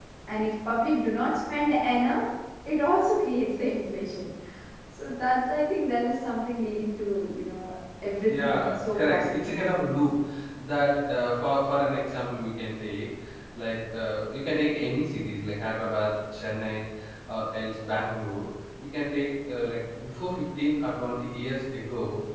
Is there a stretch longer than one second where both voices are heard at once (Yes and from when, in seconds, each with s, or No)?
Yes, from 8.3 s